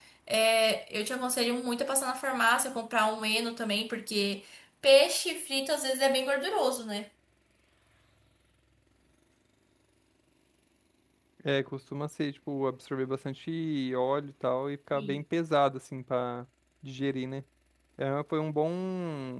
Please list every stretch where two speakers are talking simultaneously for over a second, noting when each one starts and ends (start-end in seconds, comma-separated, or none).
none